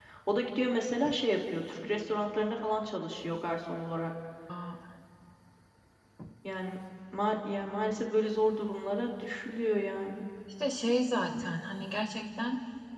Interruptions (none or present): none